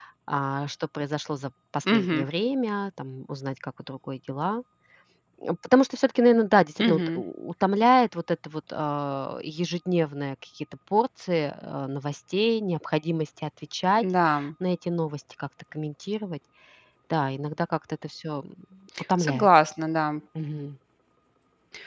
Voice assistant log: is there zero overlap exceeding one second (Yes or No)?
Yes